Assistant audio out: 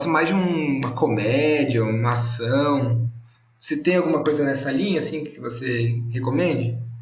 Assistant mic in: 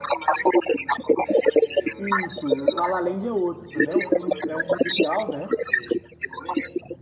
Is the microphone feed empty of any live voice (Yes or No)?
No